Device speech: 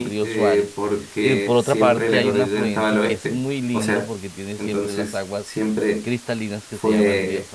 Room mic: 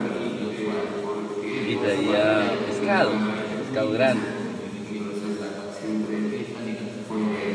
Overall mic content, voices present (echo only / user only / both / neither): both